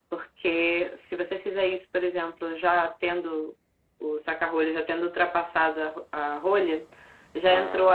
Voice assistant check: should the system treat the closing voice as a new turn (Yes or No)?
No